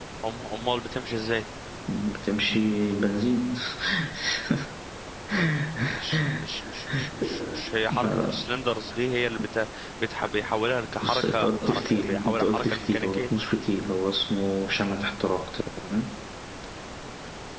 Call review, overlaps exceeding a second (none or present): present